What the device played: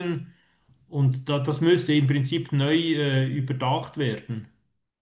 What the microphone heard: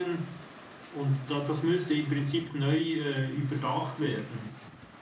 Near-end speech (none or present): none